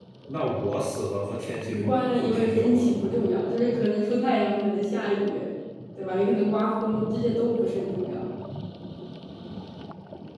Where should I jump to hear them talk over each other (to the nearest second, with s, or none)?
2 s